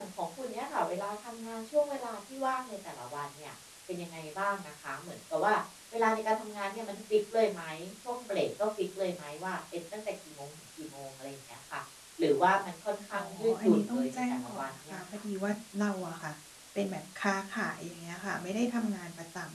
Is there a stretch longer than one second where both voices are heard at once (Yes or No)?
Yes